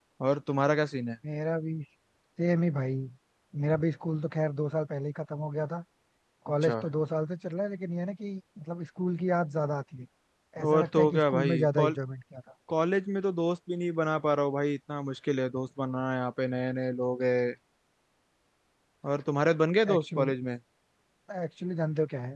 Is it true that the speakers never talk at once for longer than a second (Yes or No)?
No